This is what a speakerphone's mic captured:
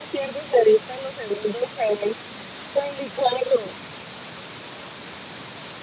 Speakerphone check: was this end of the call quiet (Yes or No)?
Yes